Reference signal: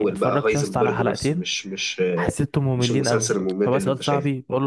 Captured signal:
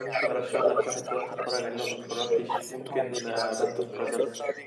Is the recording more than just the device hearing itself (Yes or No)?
Yes